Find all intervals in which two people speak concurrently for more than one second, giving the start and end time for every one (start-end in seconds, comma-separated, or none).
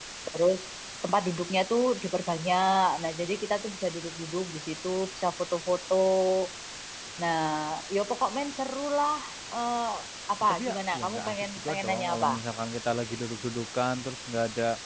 10.4-12.3